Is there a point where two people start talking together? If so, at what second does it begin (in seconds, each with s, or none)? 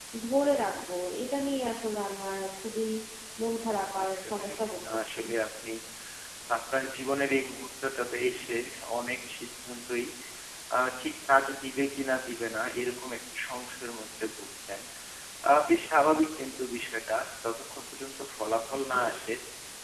3.4 s